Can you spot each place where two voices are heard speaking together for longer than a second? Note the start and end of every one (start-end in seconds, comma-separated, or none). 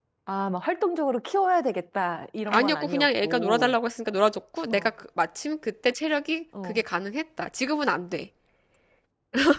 2.5-3.8